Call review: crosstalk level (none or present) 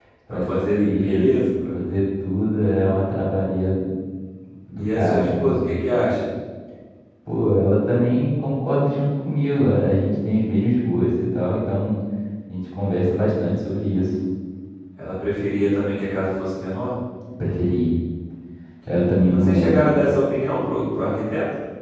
present